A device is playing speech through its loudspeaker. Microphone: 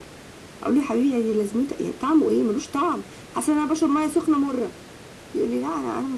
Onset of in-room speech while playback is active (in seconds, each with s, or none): none